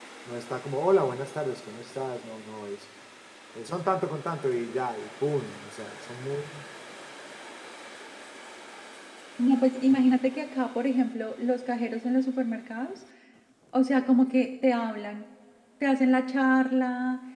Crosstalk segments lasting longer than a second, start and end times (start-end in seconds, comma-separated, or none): none